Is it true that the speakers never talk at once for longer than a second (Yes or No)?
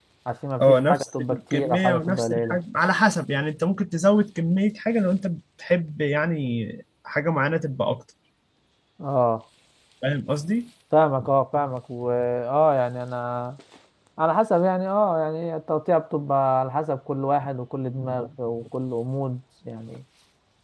No